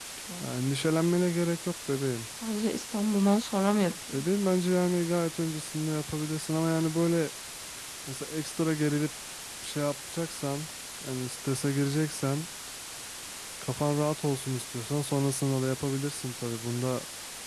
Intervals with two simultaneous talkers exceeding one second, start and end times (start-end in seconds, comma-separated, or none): none